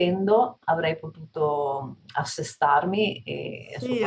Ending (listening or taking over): taking over